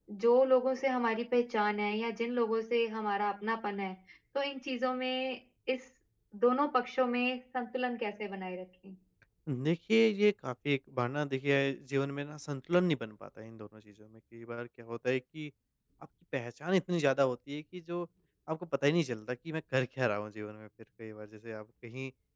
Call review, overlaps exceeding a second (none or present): none